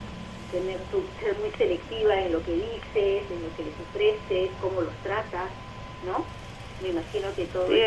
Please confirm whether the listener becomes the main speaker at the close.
Yes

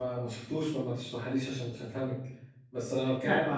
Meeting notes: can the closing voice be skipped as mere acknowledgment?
Yes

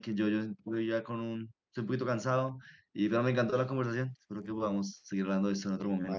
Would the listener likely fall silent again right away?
No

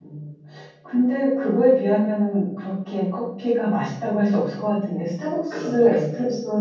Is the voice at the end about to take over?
No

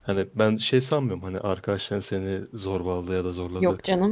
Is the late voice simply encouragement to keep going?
Yes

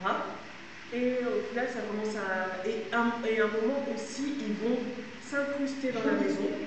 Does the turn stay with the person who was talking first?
No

